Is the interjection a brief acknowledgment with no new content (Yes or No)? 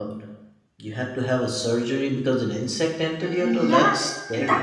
No